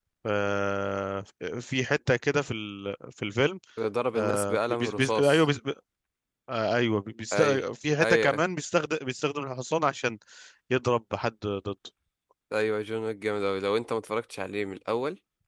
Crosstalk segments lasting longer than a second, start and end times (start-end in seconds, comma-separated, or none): 4.1-5.5